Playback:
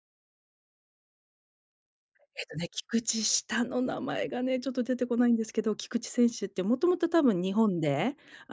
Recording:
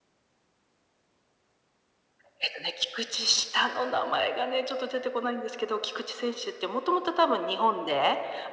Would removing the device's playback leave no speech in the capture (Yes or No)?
Yes